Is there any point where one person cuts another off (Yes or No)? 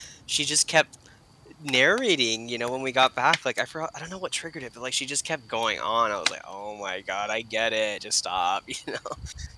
No